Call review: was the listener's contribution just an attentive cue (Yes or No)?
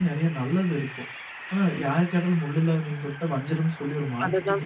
No